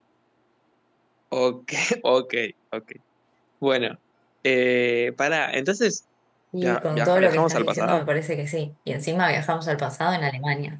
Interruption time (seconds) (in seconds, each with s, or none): 6.6 s